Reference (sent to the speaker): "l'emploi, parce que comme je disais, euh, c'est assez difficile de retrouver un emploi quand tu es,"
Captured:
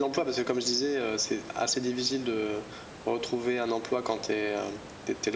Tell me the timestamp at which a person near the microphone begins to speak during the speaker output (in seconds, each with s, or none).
none